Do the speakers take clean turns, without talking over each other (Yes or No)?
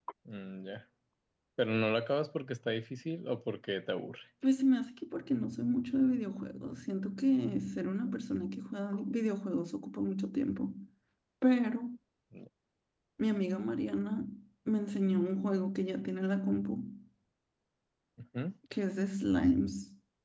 Yes